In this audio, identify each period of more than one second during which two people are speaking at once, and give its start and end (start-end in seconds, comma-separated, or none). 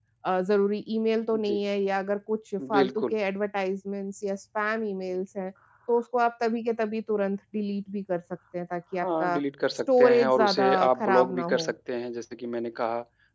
10.0-11.7